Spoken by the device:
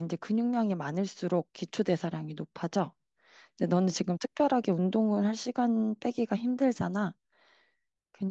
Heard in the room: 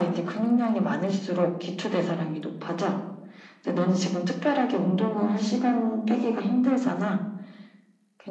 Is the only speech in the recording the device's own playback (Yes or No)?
Yes